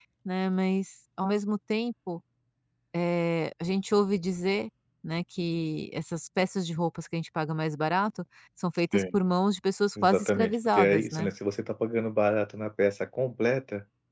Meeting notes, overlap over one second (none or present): present